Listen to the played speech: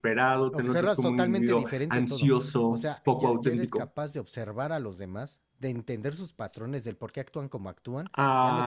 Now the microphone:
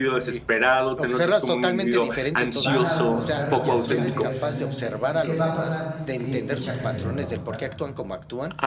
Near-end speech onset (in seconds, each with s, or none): 2.5 s